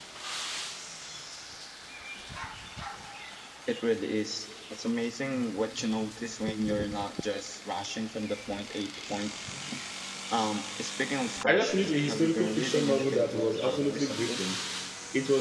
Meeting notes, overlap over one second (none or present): present